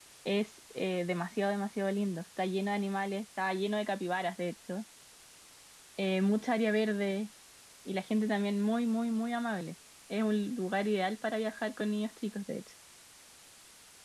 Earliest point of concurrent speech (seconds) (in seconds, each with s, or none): none